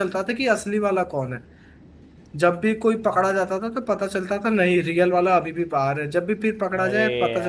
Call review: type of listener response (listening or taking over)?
listening